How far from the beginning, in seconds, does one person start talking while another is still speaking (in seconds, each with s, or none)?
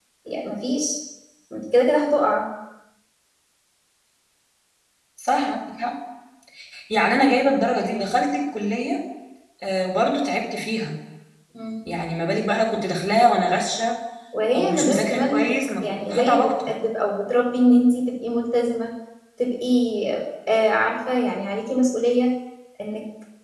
14.5 s